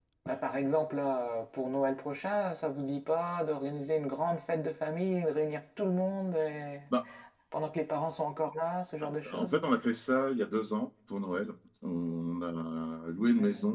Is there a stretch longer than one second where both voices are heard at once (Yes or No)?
No